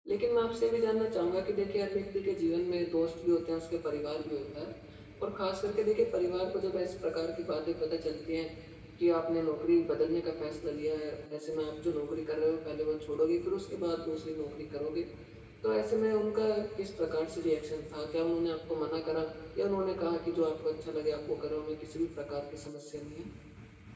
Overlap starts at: none

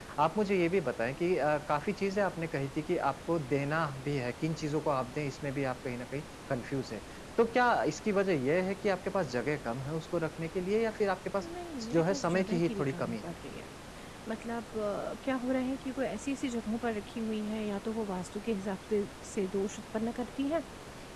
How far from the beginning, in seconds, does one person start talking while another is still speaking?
11.9 s

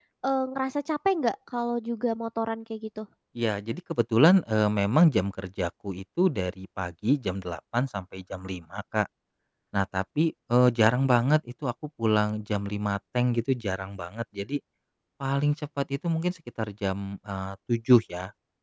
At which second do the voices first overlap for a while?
none

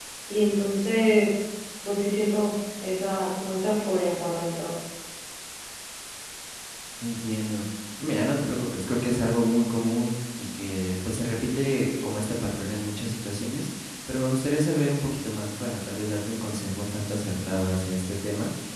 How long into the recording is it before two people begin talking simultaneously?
none

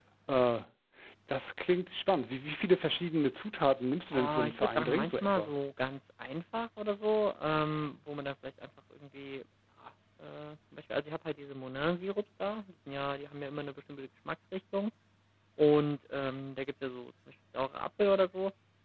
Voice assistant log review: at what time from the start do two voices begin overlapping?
4.1 s

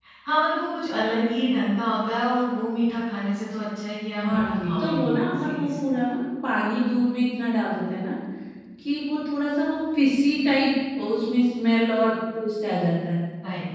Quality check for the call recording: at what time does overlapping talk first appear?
4.2 s

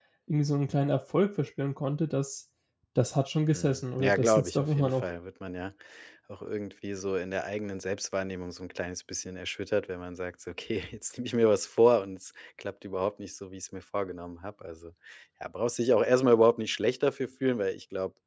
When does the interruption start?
3.5 s

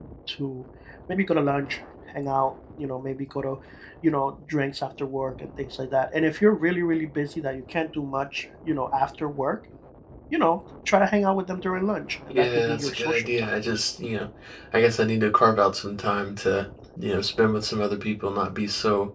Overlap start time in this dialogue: 12.3 s

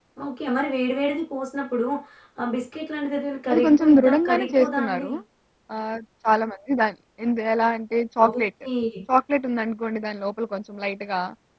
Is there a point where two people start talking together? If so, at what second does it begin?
3.5 s

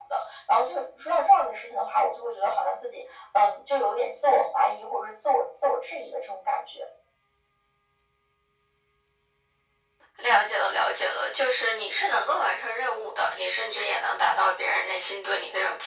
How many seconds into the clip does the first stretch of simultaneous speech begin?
none

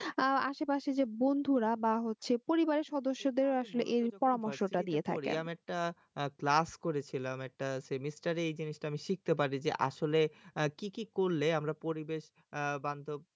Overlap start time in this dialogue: 3.4 s

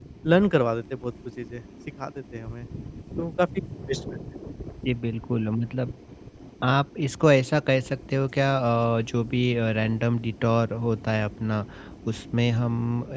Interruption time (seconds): none

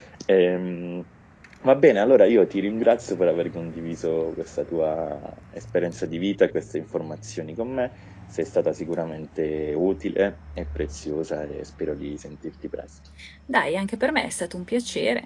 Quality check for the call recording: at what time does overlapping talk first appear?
none

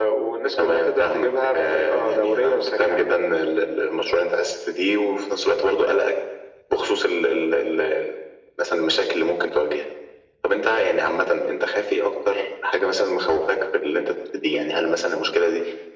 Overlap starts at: 0.6 s

